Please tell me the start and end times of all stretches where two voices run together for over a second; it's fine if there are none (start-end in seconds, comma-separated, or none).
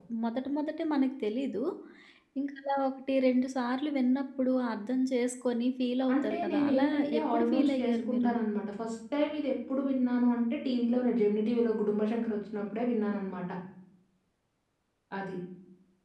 6.1-8.3